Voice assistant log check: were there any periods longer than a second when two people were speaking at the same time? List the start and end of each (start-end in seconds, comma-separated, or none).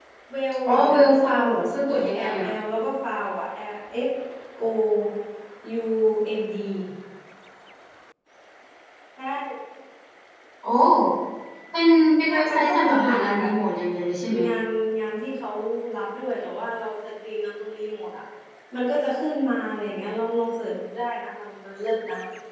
0.7-2.5, 12.3-13.5